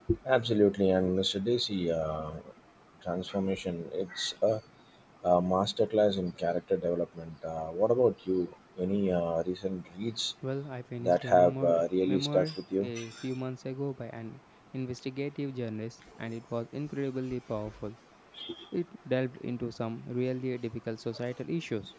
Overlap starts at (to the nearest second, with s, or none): 11 s